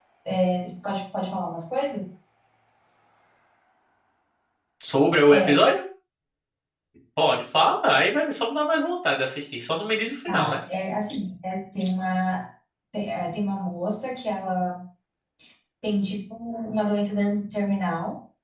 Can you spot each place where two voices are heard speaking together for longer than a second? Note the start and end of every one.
none

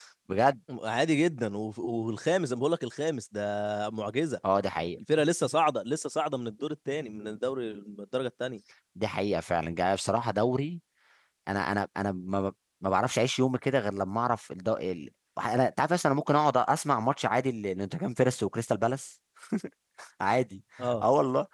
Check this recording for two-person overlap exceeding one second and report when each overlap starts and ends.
none

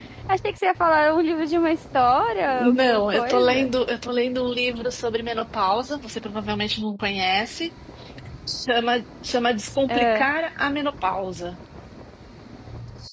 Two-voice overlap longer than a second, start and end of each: 2.4-3.7

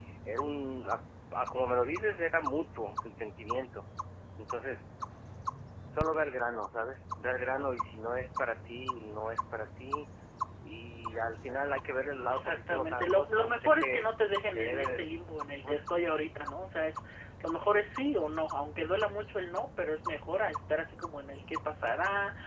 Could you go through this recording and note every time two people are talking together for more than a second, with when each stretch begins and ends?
12.3-14.0

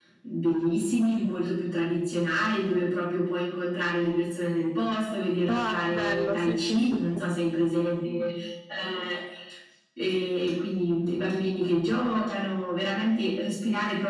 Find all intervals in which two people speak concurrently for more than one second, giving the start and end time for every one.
5.5-6.8

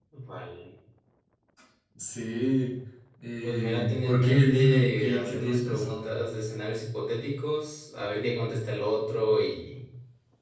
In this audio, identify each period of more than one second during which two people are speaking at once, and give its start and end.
3.4-6.1

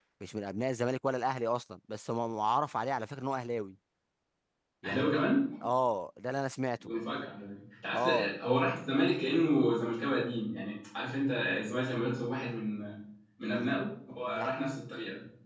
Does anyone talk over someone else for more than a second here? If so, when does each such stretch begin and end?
none

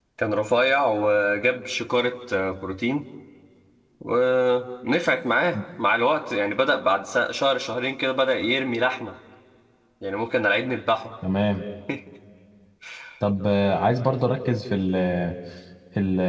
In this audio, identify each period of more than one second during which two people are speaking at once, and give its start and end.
none

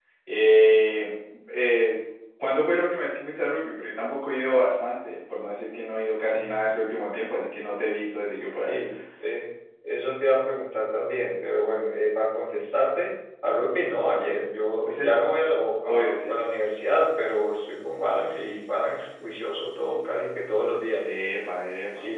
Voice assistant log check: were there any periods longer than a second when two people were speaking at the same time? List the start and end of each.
none

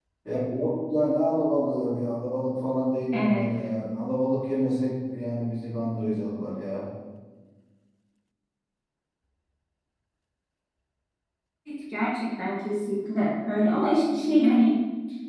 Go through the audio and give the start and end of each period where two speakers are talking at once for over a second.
none

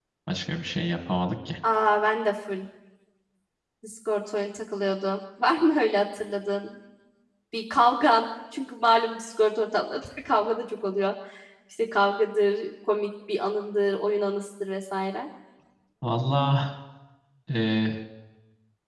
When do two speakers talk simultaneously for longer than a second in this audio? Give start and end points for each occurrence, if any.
none

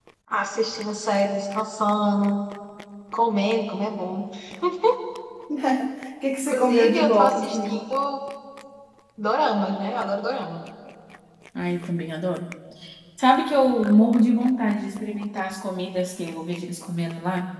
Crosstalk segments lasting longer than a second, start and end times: 6.5-7.8

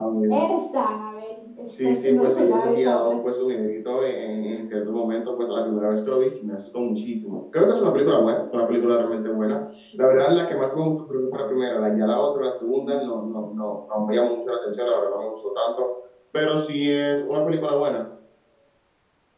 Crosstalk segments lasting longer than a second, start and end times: 1.7-3.2

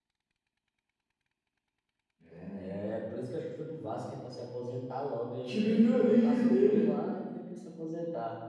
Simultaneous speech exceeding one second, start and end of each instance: 5.4-6.9

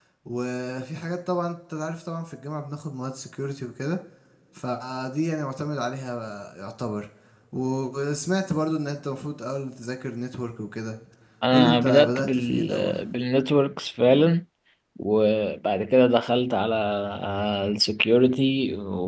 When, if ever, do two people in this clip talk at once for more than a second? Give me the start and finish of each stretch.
11.5-12.9

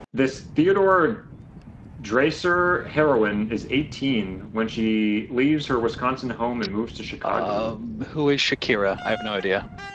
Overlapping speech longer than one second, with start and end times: none

